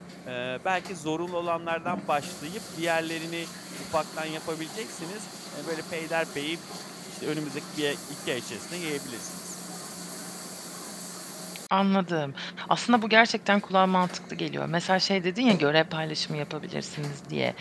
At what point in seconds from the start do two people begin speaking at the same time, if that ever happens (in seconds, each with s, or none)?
none